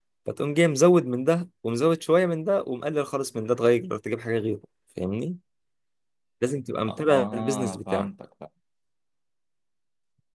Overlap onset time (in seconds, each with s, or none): 6.8 s